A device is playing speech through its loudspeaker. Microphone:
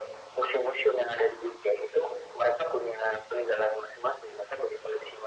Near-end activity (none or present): none